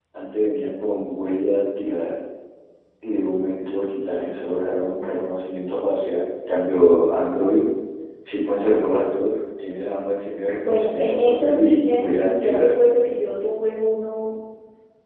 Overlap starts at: 10.6 s

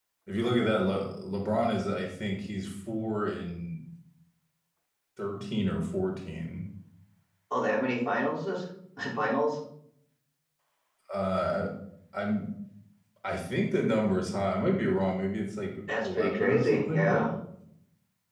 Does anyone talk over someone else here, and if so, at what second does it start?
15.9 s

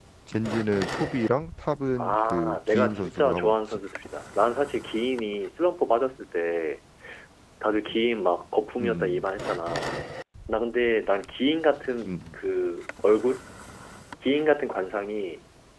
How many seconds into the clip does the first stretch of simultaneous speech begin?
2.0 s

